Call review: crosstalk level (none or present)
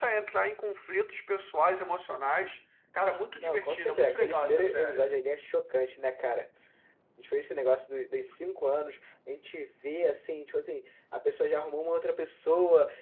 present